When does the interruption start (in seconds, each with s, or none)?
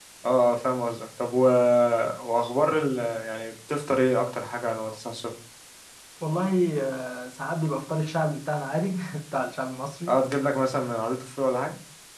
none